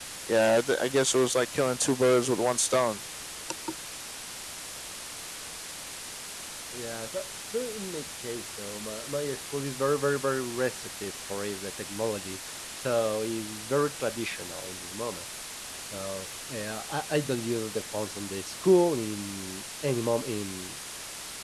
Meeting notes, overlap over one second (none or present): none